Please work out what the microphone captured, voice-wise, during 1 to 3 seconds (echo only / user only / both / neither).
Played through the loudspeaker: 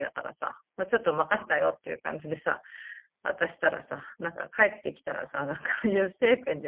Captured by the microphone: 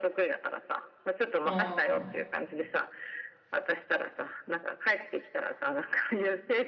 both